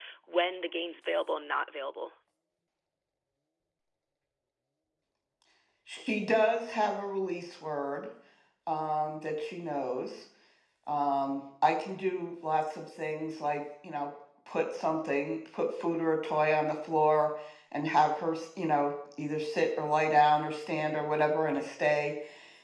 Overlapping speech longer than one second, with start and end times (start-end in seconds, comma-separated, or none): none